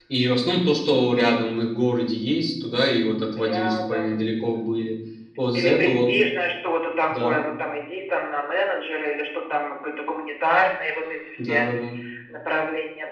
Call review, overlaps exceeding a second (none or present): present